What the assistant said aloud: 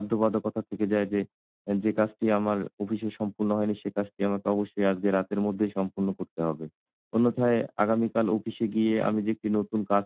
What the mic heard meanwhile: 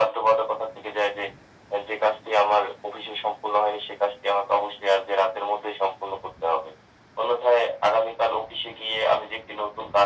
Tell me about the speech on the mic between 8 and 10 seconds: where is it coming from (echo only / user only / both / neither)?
echo only